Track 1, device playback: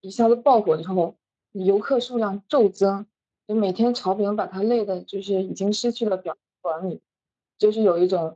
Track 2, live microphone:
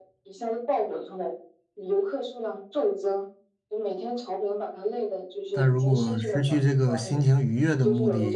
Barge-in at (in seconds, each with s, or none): 5.5 s